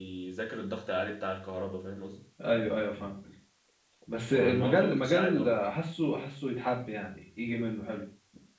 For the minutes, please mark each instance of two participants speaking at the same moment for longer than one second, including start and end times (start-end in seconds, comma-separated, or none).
4.3-5.6